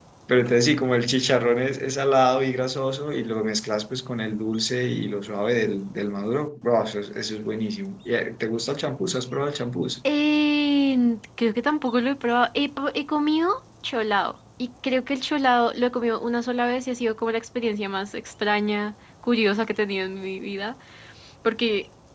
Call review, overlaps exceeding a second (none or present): none